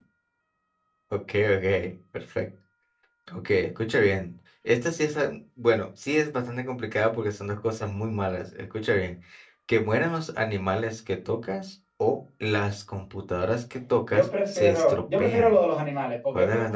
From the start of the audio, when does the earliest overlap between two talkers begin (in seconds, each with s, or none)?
14.1 s